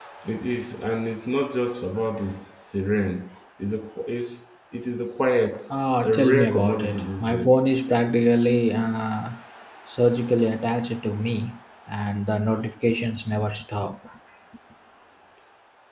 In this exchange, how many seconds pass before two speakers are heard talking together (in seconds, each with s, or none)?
6.0 s